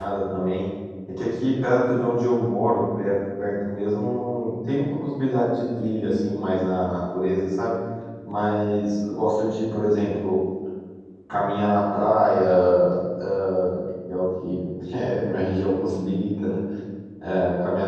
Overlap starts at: none

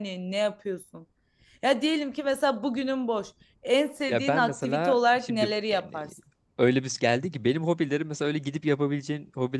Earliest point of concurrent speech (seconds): 4 s

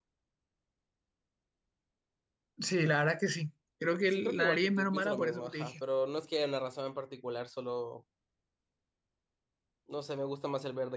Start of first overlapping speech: 4 s

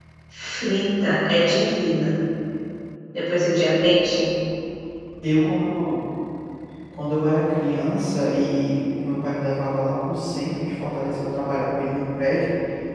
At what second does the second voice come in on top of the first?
none

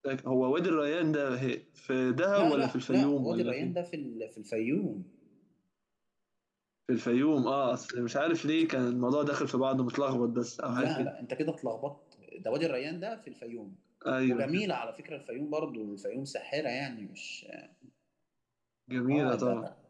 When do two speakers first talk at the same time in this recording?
2 s

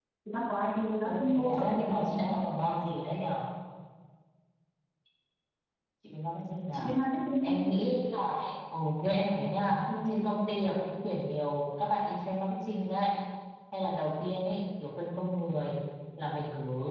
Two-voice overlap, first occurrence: 1 s

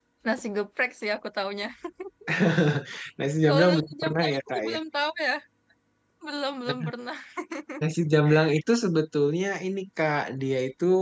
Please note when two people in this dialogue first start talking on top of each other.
3 s

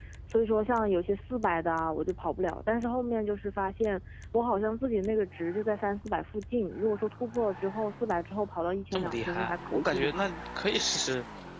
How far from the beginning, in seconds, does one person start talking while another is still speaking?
9 s

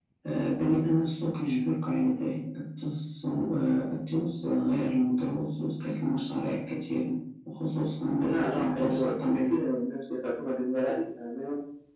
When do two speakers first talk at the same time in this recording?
8 s

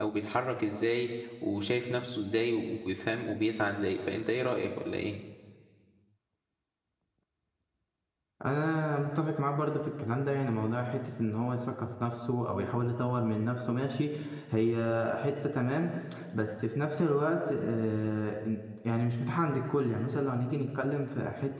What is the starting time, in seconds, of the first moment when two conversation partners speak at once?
none

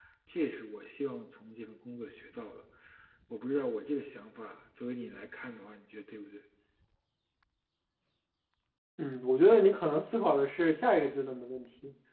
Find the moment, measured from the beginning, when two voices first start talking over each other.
none

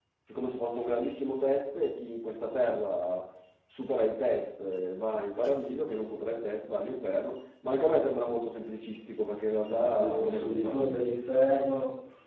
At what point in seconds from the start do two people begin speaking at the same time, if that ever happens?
10 s

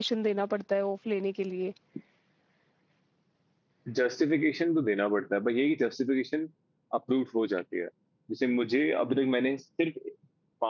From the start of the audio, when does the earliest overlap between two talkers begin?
none

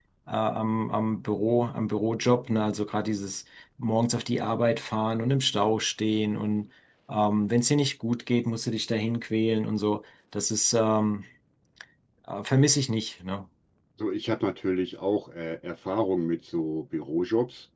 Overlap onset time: none

